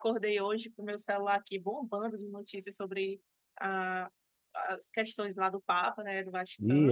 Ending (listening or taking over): taking over